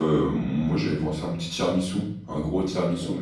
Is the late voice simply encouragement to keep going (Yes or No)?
No